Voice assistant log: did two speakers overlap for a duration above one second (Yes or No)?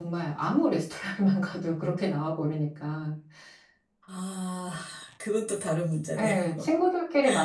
No